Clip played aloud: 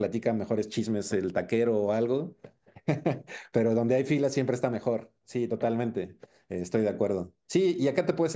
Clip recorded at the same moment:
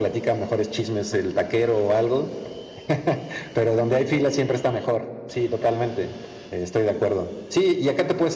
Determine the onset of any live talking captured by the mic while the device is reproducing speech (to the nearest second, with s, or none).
none